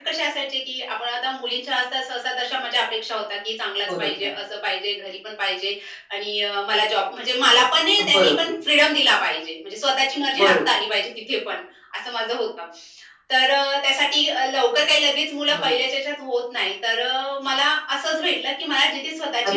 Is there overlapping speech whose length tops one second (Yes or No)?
No